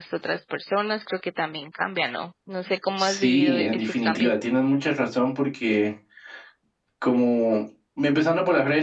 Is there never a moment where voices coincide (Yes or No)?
No